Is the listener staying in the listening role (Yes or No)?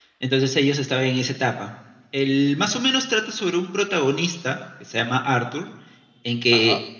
Yes